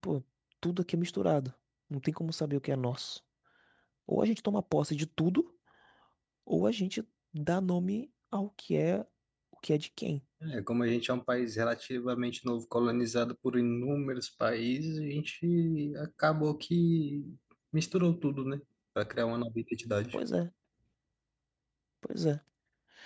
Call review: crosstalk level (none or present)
none